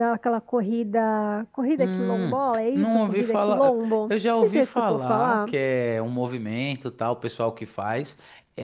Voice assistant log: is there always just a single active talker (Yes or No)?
No